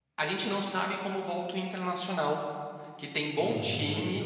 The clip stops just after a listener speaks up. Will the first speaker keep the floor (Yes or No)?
Yes